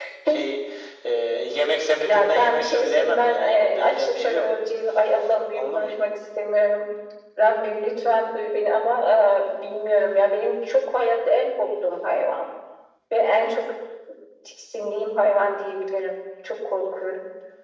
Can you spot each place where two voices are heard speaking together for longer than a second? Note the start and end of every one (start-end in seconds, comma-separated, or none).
2.1-4.5